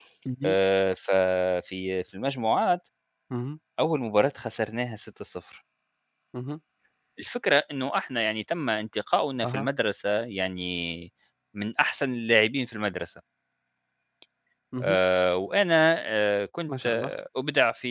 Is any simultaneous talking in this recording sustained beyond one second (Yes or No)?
No